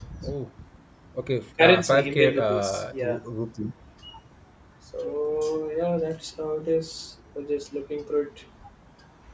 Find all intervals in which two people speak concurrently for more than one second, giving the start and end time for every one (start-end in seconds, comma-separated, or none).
1.6-3.2